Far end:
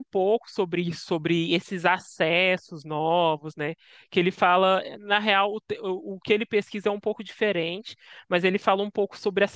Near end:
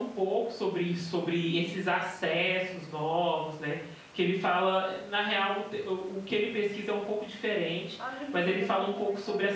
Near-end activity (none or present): present